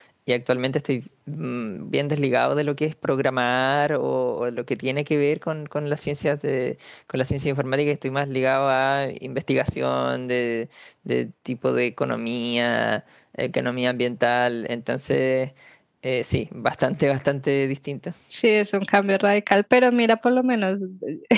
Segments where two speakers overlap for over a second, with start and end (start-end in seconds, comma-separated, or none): none